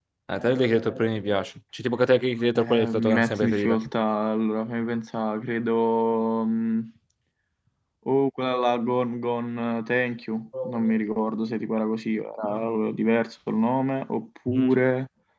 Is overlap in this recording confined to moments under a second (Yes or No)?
No